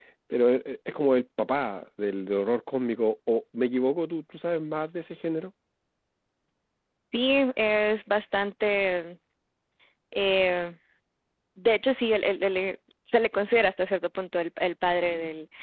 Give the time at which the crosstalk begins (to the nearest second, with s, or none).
none